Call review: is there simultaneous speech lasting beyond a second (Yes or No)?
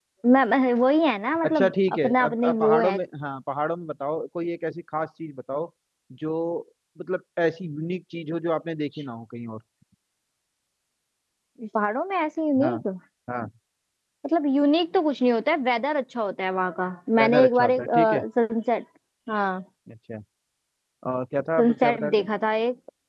Yes